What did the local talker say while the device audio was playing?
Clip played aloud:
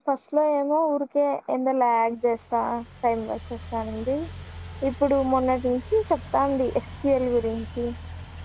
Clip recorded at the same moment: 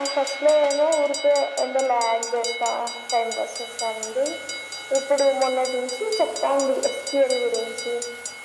none

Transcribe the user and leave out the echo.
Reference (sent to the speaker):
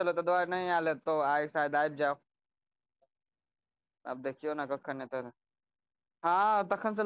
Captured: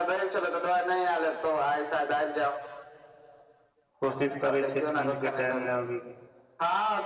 कोशिश करै छियै ठण्ड के टाइम मे अबैके

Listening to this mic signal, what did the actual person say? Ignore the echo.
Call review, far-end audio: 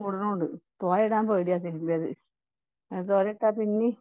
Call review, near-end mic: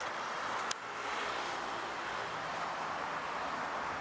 none

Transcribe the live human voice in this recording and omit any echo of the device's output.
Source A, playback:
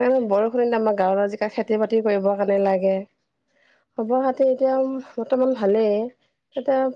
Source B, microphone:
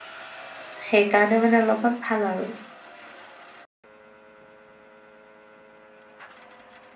সেইকাৰণে মানে অলপমান ভাল আৰু।

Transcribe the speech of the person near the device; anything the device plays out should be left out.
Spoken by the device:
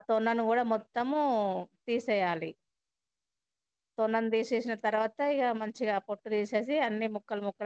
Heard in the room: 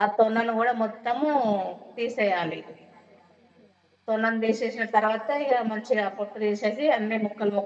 none

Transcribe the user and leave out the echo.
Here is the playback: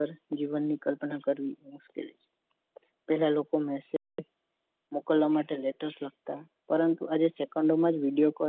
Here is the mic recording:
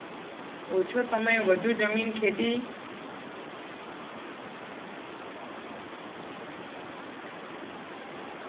ઓછો સમય વધુ જમીન ખેતી

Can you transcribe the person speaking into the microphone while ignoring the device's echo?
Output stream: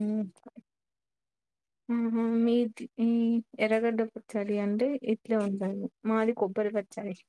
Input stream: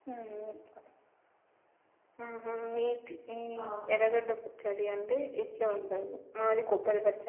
అవునా

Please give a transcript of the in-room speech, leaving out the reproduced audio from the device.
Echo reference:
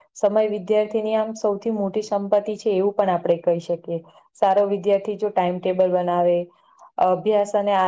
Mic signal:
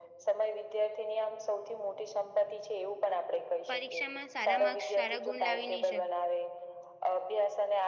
પરીક્ષામાં સારા માર્ક્સ સારા ગુણ લાવી નહી

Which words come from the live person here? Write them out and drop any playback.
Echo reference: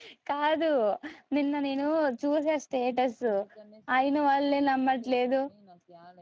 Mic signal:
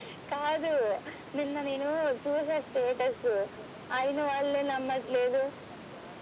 none

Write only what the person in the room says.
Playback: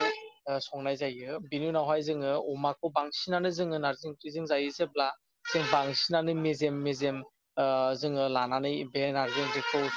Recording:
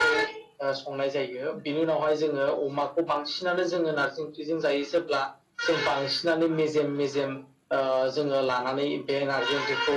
none

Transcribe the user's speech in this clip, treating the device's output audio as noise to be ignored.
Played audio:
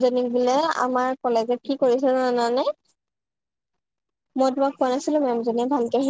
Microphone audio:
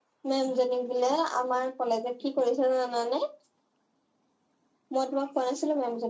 none

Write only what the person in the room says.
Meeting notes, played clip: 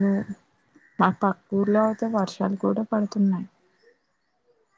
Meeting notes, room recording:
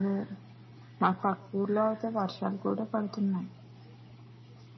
none

